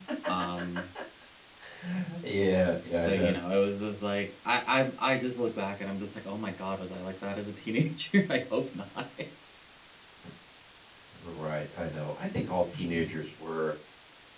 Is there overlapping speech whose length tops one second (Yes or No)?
No